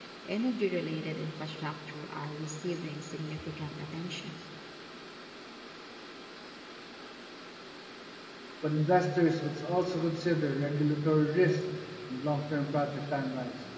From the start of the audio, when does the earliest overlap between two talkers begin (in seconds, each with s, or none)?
none